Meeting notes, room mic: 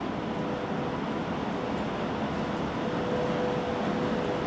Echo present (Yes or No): No